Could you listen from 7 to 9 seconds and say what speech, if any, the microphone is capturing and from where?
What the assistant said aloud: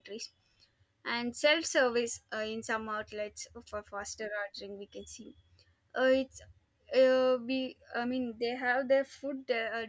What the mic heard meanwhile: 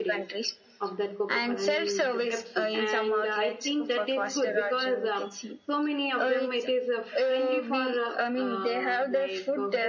both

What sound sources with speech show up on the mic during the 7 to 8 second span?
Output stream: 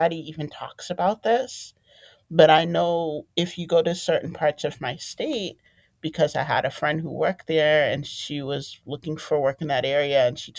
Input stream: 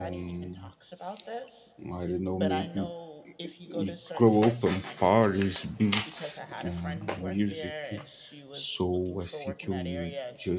both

